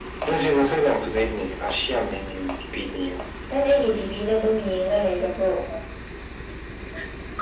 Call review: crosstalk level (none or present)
none